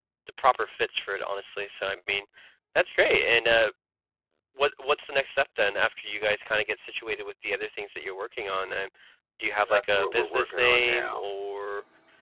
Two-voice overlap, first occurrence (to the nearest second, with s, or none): 10 s